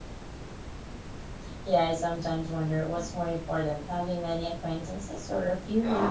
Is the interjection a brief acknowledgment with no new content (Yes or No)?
No